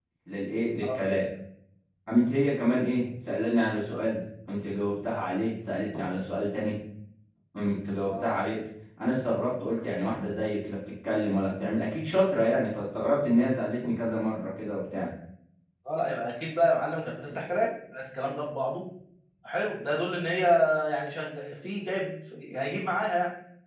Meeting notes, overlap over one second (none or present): none